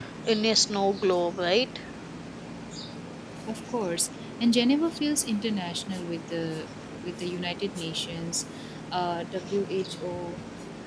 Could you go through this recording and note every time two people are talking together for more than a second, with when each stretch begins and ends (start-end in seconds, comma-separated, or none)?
none